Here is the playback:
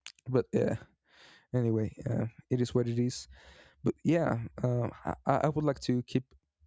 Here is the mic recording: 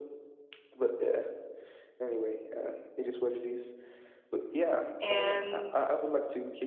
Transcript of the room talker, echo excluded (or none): And